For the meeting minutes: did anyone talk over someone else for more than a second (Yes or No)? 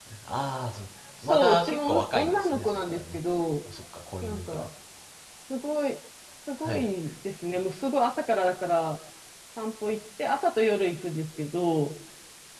Yes